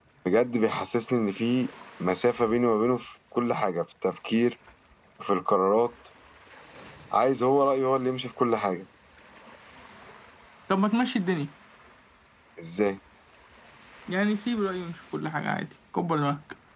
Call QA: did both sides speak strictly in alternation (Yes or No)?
Yes